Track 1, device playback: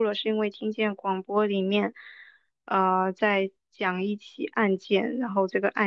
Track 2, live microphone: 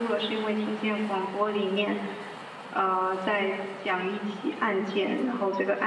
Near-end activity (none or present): none